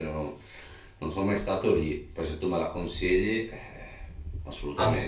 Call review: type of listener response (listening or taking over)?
taking over